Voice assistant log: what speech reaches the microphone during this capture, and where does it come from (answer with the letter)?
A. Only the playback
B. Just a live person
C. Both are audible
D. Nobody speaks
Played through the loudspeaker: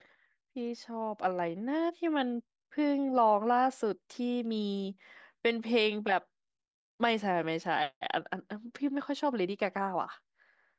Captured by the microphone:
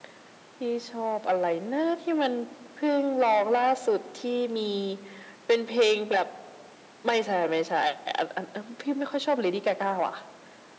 A